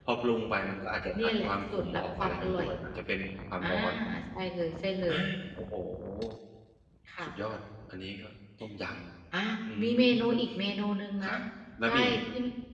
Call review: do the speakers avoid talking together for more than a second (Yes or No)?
No